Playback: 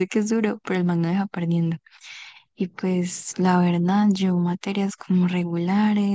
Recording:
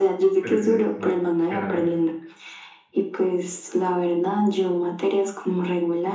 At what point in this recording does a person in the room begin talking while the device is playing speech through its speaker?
0.4 s

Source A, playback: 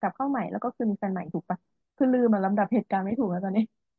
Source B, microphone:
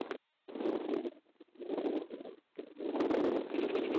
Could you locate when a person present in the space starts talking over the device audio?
none

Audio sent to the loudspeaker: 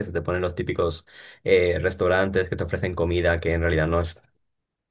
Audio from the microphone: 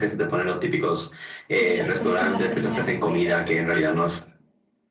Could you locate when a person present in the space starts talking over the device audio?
1.6 s

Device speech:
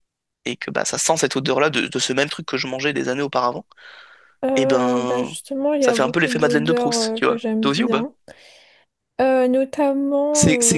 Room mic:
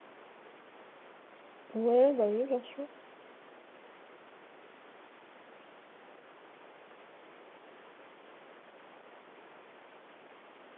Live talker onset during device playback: 1.7 s

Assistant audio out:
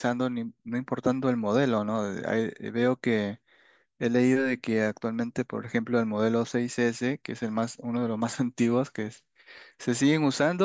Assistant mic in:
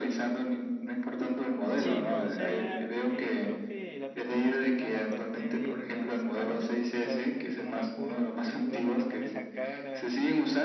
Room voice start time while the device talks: 1.8 s

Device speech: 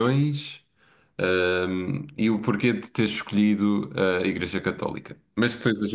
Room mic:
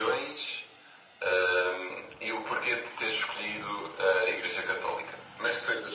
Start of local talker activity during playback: none

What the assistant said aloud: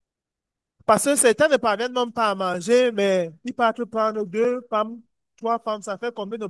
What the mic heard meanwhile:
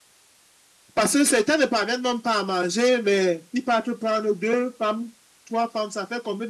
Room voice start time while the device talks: none

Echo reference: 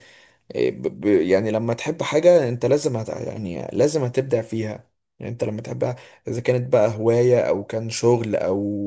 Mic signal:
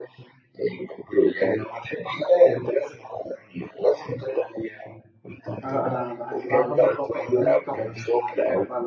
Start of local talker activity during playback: 5.6 s

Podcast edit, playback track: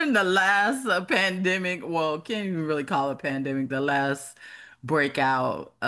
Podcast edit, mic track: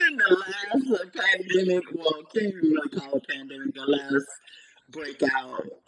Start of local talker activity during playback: none

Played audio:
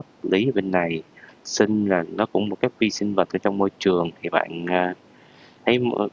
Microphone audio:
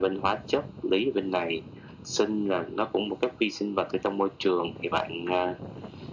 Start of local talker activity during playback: none

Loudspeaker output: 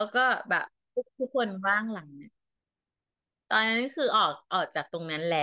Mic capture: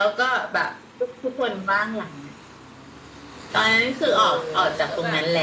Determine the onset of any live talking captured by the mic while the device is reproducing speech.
4.0 s

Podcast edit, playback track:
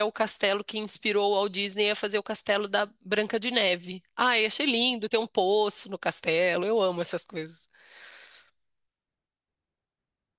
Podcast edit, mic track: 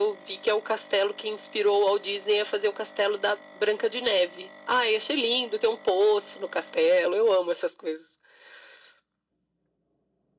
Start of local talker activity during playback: none

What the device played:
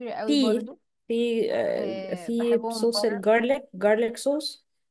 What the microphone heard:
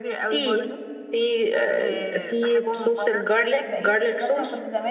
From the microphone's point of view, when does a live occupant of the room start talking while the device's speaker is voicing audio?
3.6 s

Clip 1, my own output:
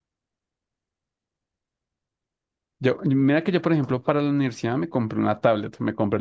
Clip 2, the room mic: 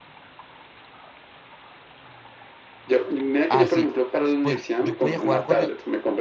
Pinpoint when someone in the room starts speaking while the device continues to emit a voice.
3.5 s

